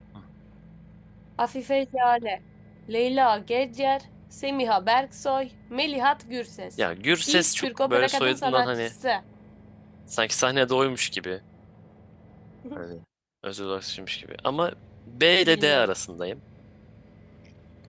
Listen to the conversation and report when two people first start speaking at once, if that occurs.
7.3 s

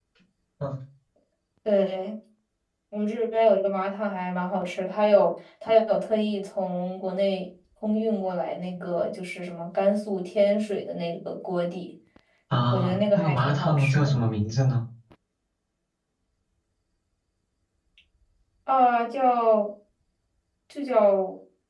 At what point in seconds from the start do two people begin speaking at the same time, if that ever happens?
12.7 s

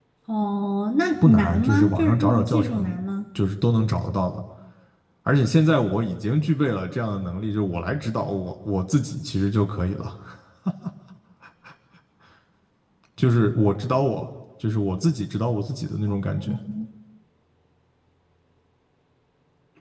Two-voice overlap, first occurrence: 1.2 s

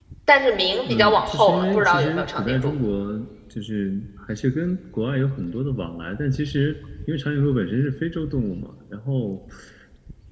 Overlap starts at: 0.8 s

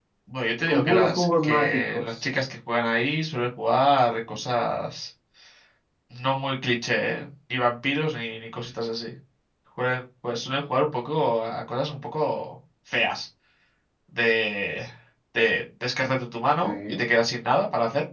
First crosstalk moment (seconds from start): 0.7 s

